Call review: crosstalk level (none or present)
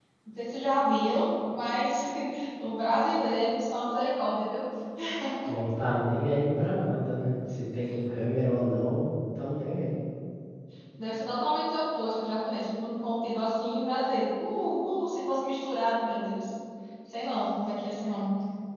none